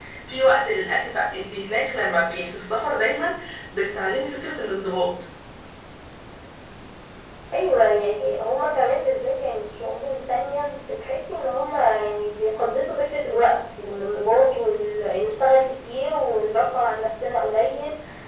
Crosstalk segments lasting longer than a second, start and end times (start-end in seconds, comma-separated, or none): none